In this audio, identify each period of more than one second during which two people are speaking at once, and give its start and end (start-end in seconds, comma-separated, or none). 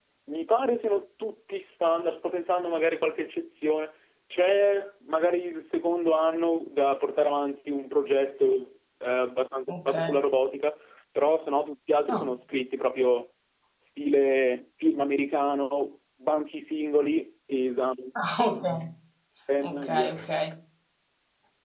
none